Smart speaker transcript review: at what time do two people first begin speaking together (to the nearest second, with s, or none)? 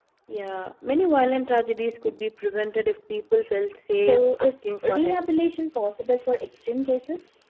4 s